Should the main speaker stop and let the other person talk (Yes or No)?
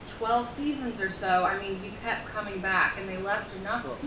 No